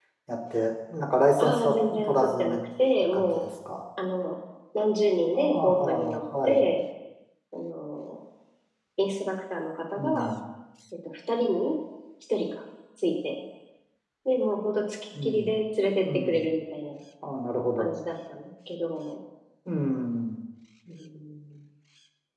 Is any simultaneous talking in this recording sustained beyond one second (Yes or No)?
Yes